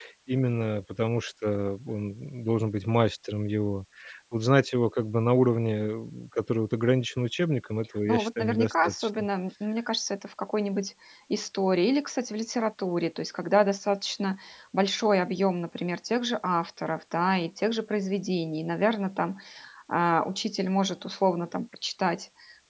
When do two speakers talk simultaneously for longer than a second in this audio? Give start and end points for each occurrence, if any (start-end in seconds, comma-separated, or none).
8.1-9.3